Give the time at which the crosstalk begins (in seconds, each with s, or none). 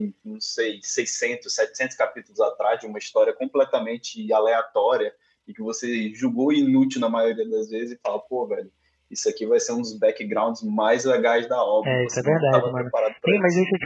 11.8 s